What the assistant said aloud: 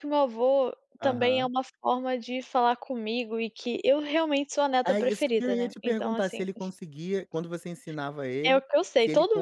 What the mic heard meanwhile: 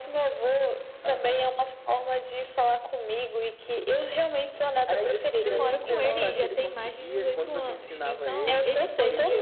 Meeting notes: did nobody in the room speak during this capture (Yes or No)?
No